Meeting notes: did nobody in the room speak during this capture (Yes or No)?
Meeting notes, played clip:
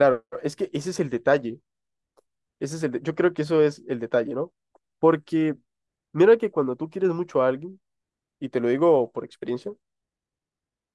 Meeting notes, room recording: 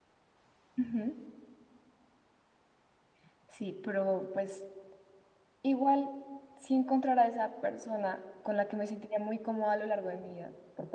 No